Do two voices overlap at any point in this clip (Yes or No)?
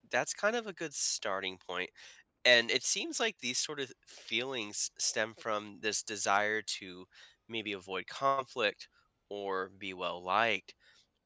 No